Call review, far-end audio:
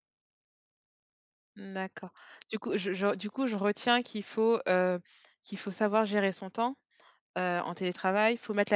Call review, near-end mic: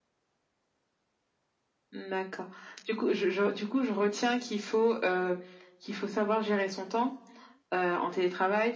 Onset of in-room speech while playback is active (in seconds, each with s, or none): none